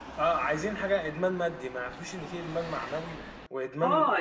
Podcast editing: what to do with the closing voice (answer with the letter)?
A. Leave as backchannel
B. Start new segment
B